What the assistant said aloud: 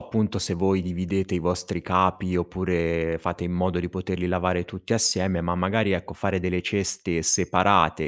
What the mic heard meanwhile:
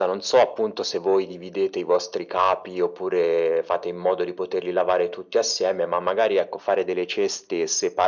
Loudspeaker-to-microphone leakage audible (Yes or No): Yes